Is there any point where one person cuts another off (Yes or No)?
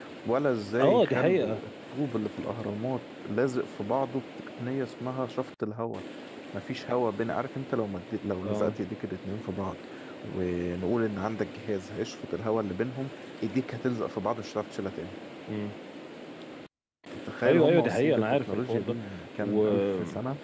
Yes